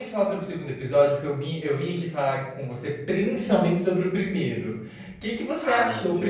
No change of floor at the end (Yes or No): Yes